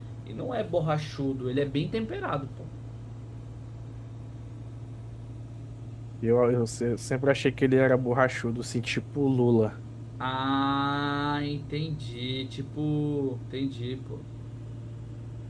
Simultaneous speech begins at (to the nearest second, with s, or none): none